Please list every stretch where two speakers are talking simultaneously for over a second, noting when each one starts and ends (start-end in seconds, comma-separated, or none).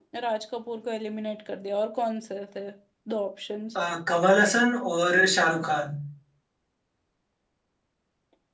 none